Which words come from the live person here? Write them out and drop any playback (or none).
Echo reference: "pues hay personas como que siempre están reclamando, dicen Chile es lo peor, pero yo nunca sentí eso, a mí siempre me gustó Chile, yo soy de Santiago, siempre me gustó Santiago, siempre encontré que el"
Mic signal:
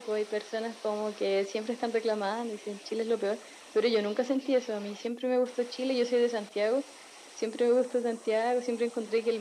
none